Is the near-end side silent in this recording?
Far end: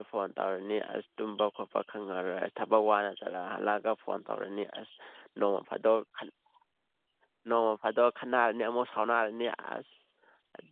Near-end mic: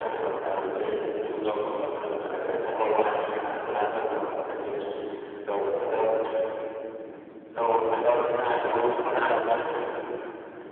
No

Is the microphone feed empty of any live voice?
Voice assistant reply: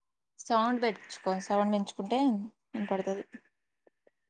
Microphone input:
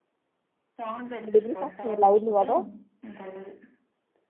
No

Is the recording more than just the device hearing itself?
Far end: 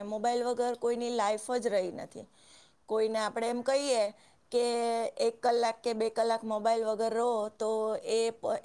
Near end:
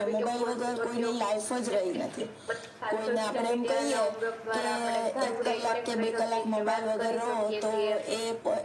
Yes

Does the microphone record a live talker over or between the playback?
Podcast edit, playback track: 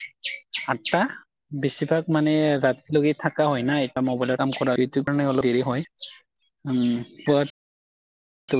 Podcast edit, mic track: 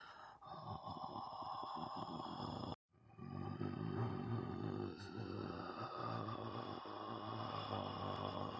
No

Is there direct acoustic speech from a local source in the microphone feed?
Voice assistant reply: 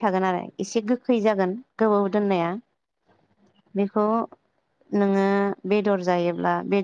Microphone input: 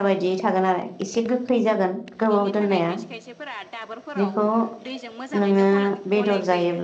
Yes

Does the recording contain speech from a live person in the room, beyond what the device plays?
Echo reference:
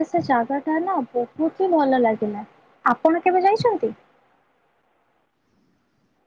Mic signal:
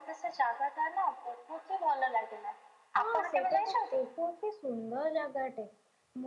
Yes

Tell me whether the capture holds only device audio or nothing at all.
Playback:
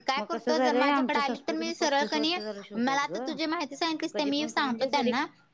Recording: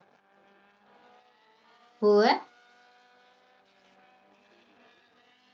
No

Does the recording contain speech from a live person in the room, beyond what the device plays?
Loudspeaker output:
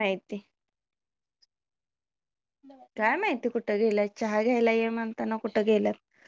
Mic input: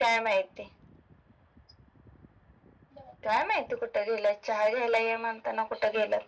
No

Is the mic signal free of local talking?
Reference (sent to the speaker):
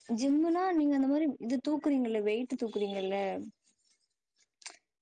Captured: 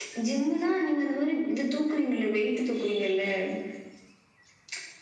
Yes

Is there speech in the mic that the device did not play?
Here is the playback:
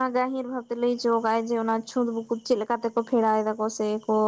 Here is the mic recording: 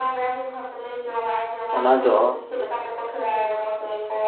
Yes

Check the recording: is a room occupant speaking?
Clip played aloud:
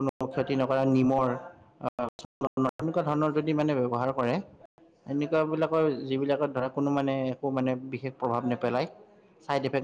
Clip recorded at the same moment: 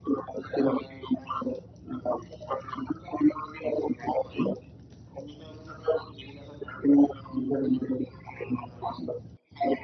No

